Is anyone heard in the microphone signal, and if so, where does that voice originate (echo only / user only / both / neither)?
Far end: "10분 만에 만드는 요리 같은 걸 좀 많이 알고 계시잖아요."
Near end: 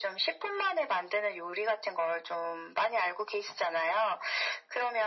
echo only